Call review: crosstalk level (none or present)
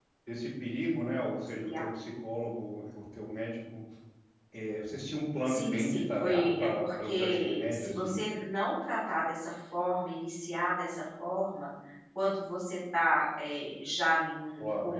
present